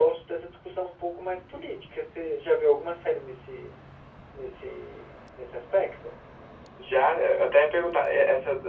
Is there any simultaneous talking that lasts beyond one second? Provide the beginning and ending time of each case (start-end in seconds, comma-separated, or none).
none